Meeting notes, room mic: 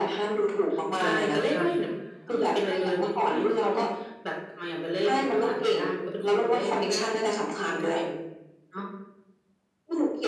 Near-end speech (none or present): present